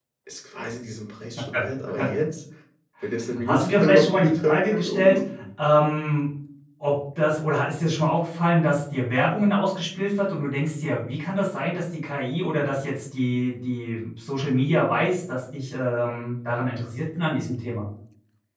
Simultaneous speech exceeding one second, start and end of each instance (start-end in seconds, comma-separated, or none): 3.5-5.2